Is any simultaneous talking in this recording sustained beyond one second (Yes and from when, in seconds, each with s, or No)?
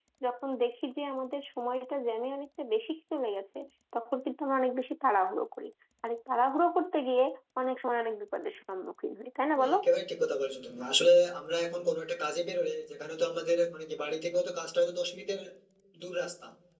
No